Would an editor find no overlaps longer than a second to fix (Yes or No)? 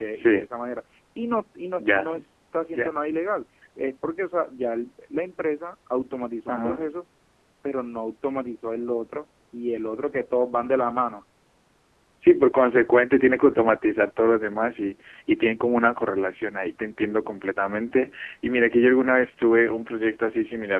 Yes